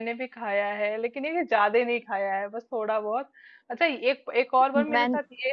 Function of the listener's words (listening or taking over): listening